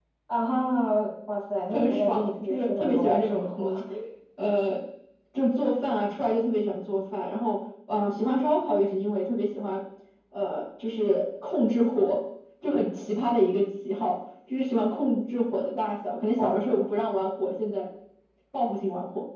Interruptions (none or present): present